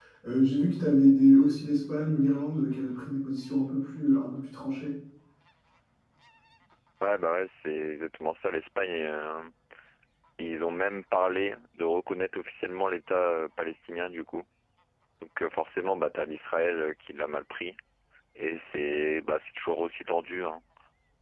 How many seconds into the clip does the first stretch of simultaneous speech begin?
none

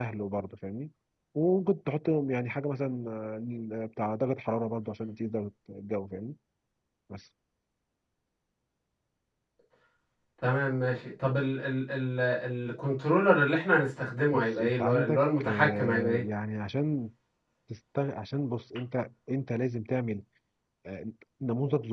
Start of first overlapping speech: 14.3 s

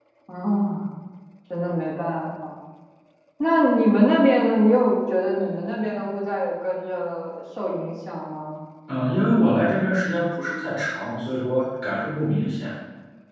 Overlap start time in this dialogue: none

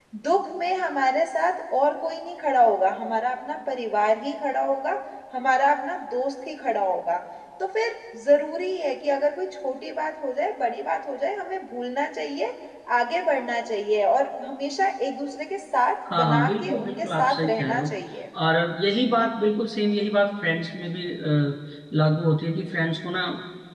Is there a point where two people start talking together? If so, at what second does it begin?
16.1 s

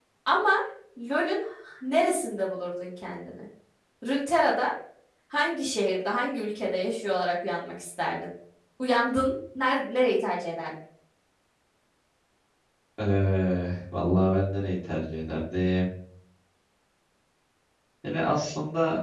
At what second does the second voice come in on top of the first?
none

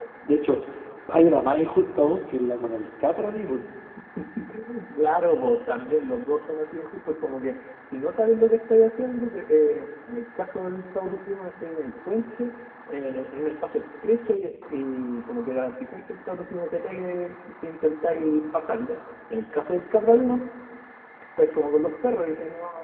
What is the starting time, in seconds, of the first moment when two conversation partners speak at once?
none

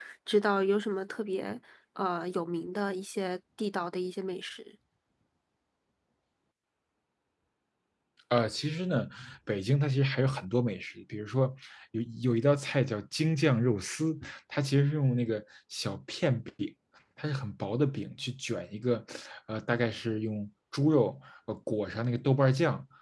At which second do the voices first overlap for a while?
none

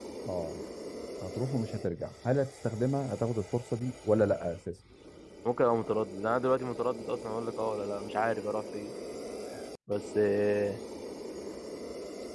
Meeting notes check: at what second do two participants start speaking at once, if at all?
none

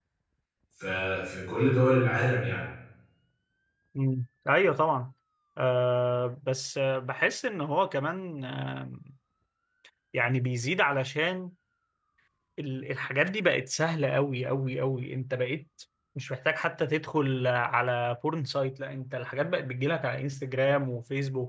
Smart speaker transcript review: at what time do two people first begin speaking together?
none

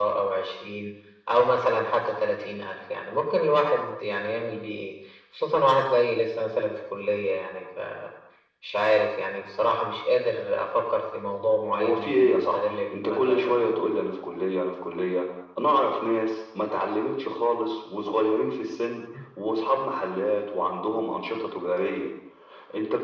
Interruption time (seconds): 11.7 s

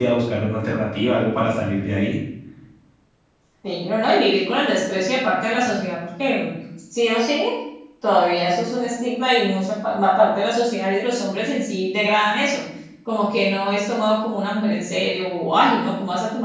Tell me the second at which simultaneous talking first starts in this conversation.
none

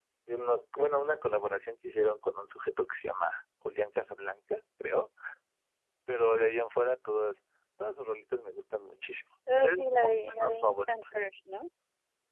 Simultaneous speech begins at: 9.5 s

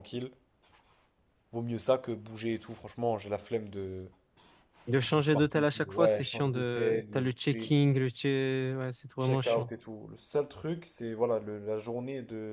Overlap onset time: 4.9 s

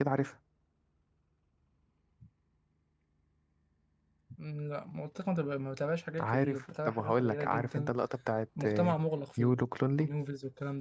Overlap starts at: 6.2 s

